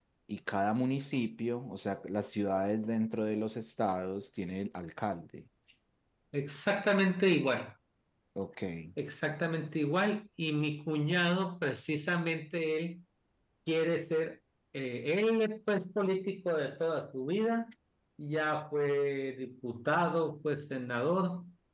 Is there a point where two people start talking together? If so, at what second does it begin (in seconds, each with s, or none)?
none